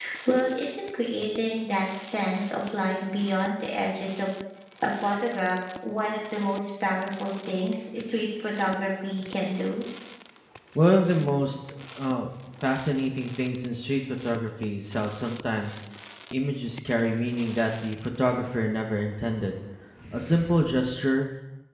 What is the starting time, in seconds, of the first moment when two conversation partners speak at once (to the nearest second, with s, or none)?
none